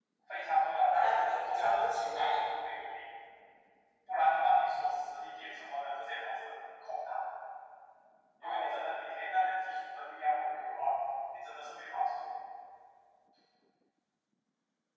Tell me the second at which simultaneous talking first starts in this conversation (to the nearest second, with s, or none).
1 s